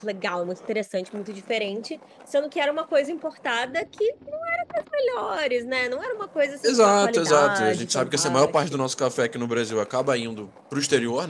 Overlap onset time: 6.6 s

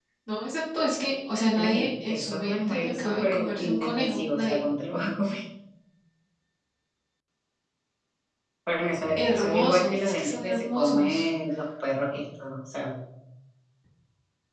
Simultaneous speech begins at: 1.6 s

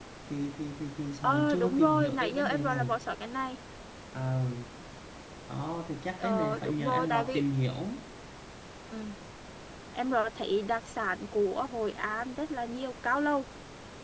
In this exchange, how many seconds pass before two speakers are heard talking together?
1.2 s

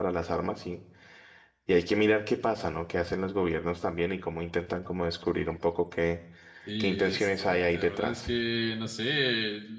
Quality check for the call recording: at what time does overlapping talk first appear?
6.8 s

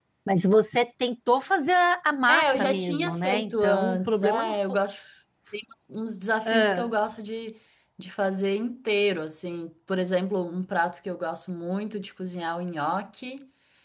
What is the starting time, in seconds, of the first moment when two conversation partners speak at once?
2.3 s

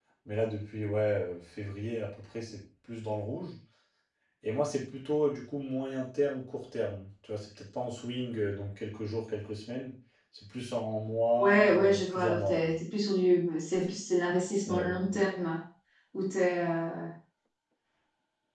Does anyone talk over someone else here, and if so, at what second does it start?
11.4 s

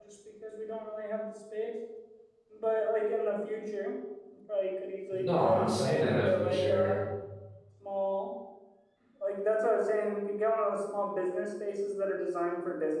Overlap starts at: 5.1 s

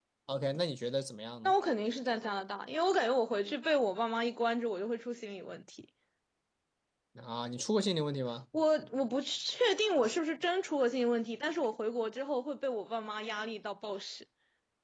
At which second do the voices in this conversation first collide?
none

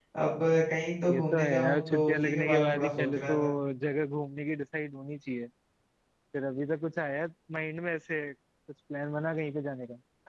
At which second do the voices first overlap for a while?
1.1 s

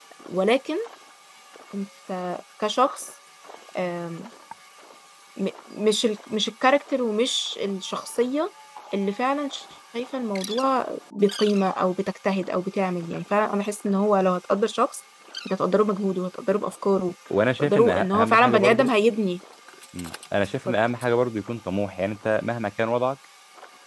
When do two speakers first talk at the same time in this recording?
17.6 s

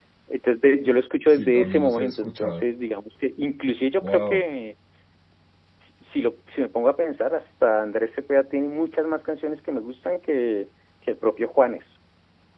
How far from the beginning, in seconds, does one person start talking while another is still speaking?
1.3 s

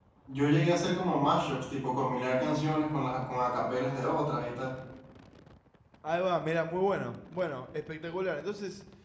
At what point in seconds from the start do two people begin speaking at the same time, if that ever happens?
none

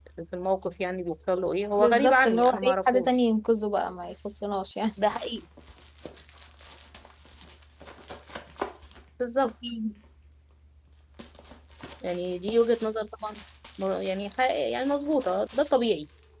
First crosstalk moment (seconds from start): 1.8 s

